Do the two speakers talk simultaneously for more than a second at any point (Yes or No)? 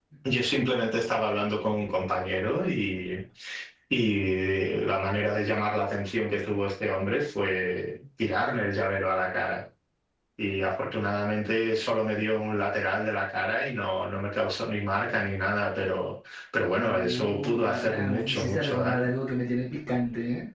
Yes